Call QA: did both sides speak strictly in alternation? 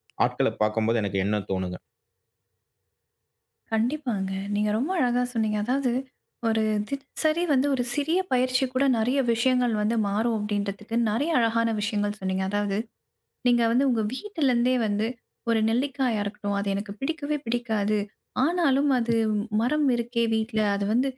Yes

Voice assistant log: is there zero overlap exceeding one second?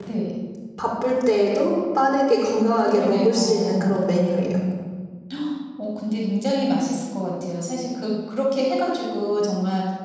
No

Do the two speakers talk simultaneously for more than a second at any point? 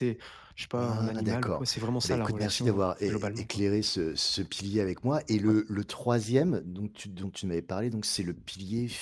Yes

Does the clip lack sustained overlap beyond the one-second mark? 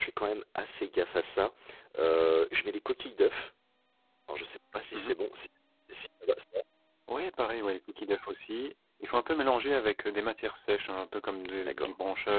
Yes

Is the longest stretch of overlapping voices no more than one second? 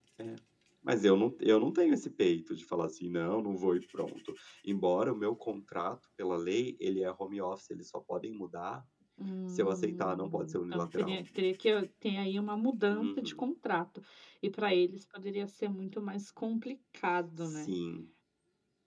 No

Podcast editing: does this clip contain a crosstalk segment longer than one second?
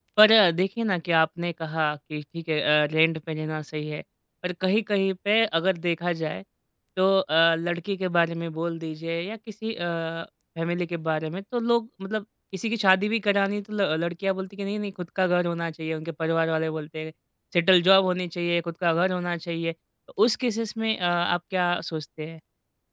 No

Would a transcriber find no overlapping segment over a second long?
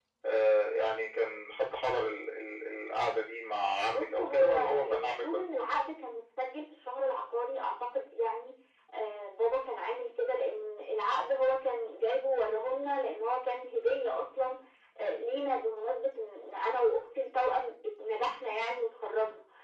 No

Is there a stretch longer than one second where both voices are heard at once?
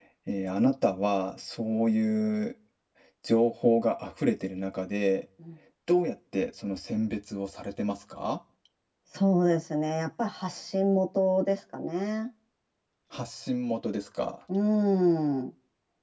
No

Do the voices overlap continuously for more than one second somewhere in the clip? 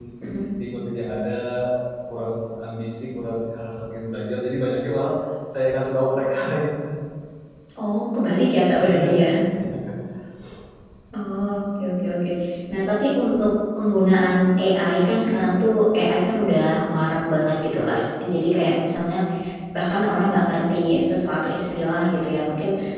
No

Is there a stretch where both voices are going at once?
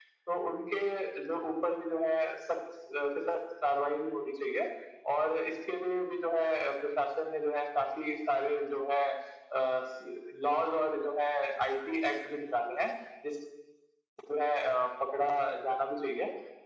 No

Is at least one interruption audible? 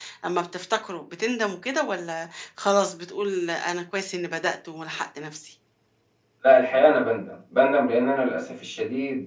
No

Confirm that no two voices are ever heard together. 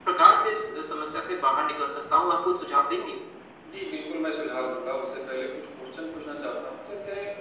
Yes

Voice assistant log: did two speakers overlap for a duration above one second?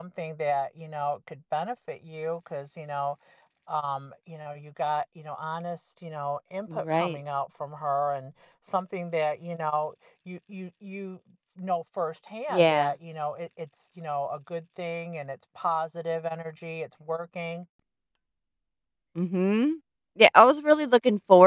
No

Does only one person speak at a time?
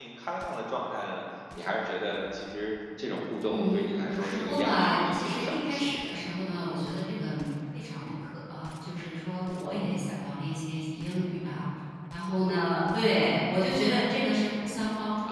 No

